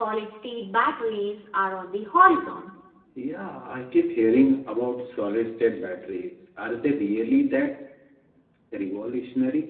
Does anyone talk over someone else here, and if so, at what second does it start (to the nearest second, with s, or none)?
none